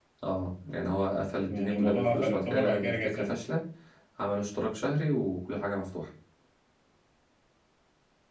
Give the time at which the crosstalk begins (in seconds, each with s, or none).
1.5 s